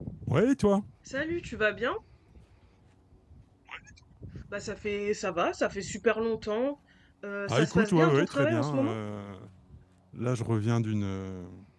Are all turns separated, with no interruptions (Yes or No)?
No